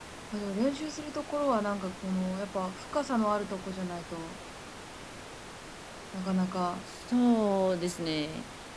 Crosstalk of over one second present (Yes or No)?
No